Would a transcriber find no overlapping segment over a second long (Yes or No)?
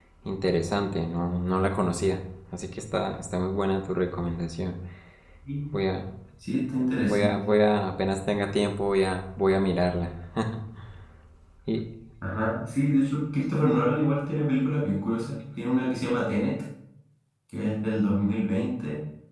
Yes